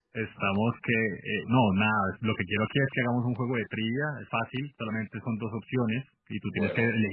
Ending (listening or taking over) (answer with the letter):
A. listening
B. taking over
A